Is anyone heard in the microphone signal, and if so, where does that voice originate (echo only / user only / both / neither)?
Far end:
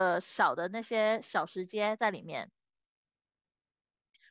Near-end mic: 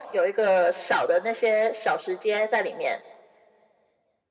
echo only